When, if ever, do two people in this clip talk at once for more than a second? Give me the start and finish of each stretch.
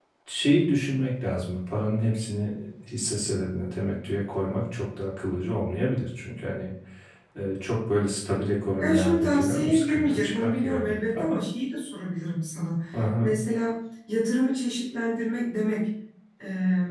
8.8-11.4

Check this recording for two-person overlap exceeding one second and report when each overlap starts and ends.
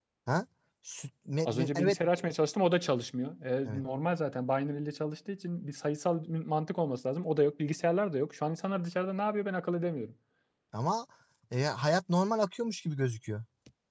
none

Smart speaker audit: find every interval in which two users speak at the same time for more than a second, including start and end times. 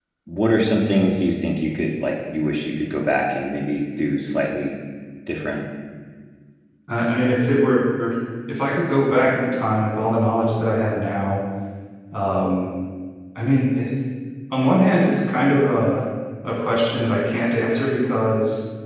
none

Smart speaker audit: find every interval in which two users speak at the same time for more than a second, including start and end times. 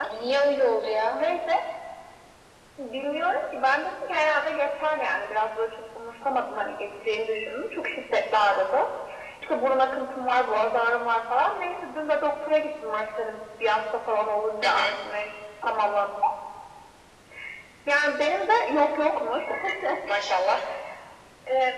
none

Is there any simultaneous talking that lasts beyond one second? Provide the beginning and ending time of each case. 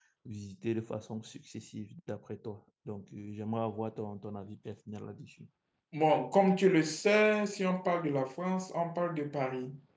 none

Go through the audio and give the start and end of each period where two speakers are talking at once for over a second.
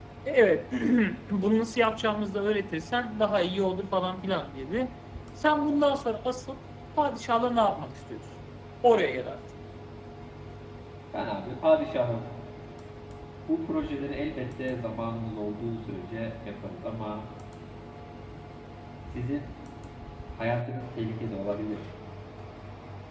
none

